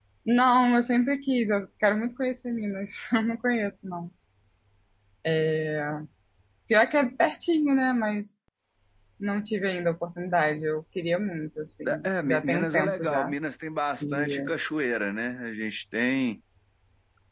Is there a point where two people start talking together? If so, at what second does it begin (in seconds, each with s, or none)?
12.0 s